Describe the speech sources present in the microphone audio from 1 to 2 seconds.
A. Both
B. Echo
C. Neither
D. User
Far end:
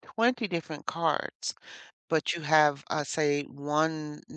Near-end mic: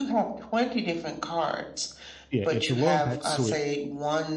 B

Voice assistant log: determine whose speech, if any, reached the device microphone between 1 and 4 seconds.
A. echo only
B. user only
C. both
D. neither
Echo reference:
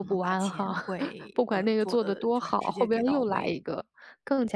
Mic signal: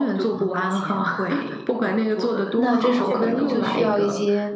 C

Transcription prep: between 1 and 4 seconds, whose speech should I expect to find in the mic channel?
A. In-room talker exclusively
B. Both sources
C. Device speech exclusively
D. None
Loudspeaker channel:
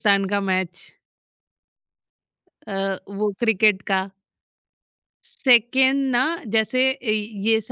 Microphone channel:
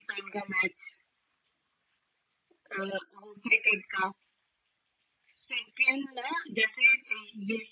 C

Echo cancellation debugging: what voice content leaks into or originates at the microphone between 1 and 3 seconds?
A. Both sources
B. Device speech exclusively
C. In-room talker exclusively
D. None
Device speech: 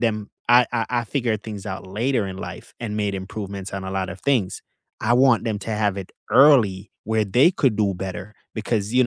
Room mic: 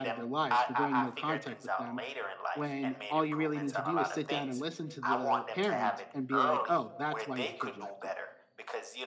A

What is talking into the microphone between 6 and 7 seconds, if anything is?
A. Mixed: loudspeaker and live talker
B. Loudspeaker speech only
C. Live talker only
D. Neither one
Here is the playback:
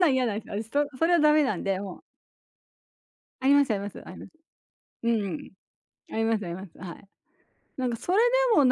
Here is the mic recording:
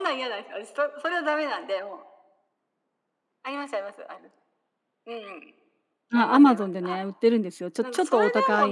A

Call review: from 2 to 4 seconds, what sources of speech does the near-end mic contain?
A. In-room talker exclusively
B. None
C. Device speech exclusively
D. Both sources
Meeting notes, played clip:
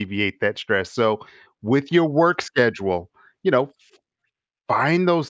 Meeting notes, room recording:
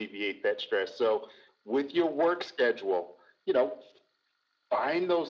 C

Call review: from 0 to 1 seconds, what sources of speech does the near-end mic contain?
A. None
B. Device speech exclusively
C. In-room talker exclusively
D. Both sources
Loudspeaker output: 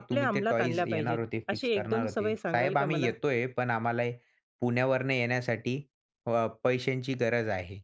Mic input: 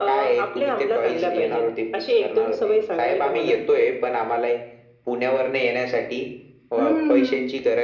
B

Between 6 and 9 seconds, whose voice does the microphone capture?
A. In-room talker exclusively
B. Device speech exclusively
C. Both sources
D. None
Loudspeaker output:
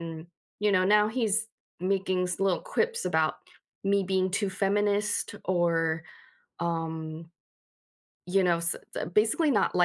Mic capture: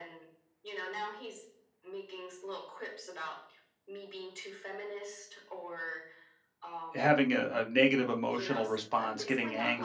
C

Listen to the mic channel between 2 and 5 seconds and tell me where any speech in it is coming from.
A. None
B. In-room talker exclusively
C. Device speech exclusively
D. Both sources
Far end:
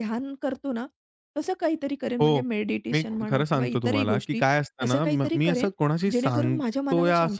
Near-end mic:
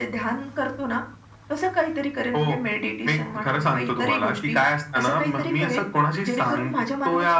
C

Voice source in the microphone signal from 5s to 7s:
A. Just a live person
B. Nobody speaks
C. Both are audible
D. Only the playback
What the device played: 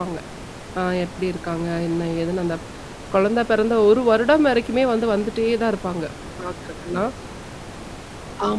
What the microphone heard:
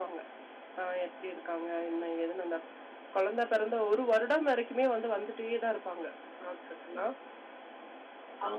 D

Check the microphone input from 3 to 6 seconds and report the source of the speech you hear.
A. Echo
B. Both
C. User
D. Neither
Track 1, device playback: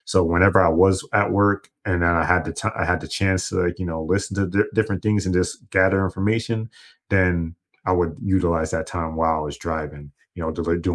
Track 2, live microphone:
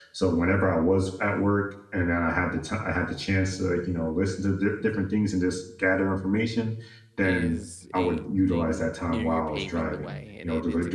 A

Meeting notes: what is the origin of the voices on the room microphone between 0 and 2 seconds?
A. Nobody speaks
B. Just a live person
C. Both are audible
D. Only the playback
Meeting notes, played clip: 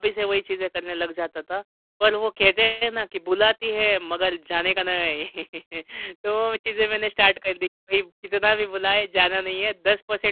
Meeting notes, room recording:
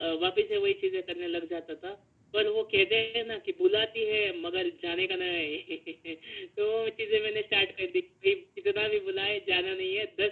D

